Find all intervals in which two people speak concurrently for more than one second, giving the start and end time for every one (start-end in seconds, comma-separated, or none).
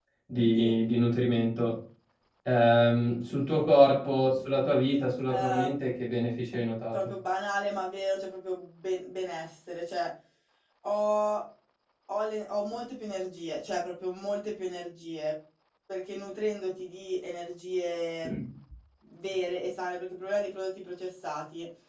none